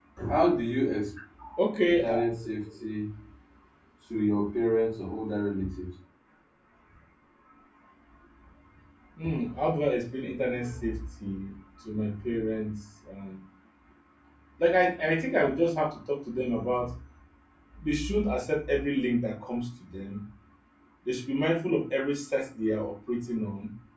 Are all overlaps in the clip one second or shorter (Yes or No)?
Yes